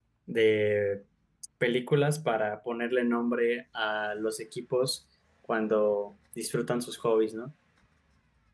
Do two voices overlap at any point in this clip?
No

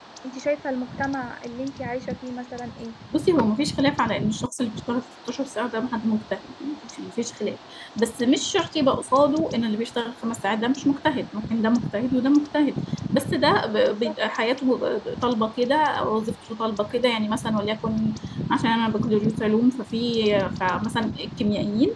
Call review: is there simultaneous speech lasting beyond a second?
No

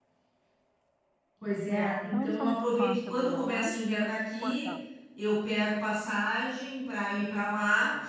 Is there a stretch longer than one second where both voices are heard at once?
Yes, from 1.7 s

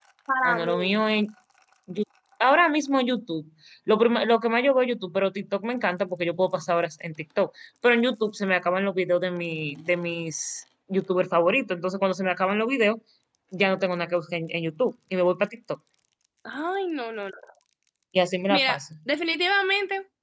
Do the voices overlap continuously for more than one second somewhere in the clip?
No

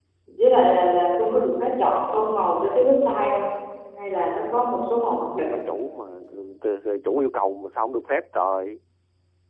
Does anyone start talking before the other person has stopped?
No

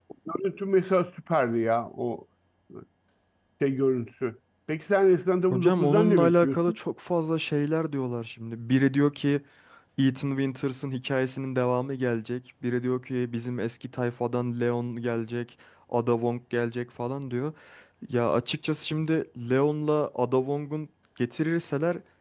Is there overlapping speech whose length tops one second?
Yes, from 5.5 s

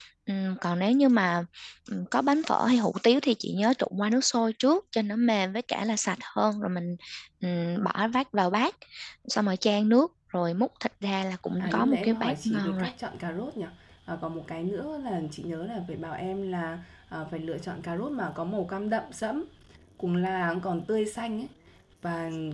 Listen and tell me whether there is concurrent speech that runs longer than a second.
Yes, from 11.6 s

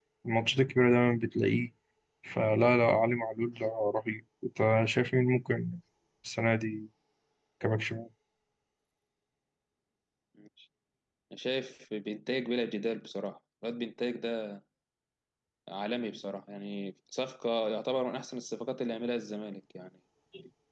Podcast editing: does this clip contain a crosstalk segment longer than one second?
No

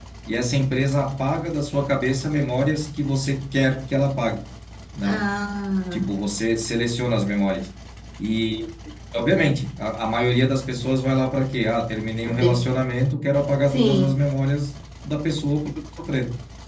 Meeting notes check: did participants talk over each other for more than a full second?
No

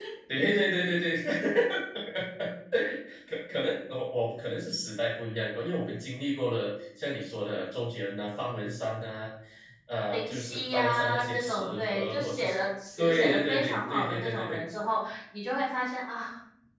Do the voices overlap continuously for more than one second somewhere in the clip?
Yes, from 10.1 s

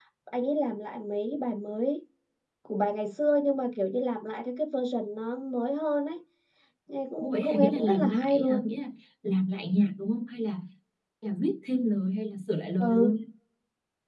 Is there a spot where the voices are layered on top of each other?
Yes, from 7.2 s

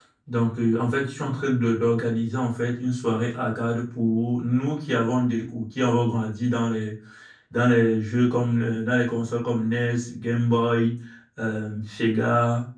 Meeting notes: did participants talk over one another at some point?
No

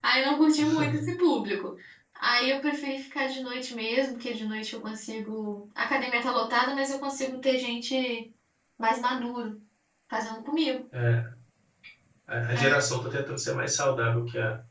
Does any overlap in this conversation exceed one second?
No

